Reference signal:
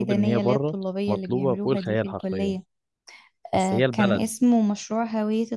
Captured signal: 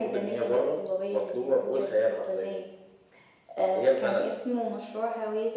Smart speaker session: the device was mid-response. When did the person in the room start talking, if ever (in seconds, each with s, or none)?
none